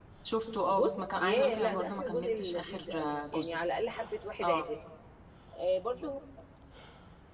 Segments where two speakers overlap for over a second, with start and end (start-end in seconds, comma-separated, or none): 0.7-3.5